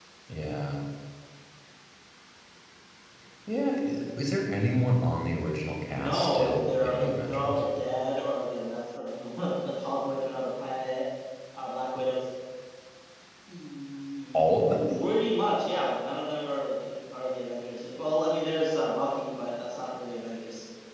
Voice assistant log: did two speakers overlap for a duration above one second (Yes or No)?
Yes